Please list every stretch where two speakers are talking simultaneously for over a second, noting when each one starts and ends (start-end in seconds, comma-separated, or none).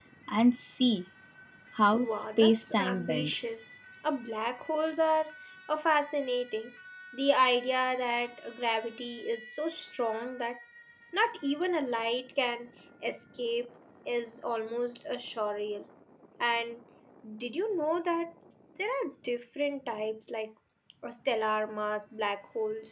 1.9-3.5